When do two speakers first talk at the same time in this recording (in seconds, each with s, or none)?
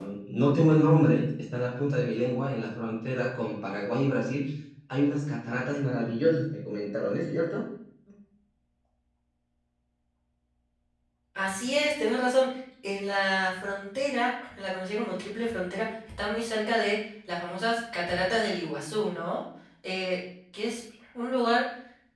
none